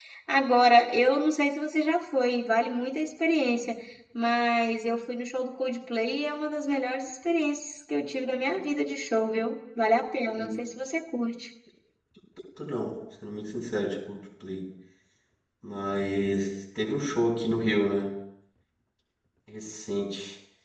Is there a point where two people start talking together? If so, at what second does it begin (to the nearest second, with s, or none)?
none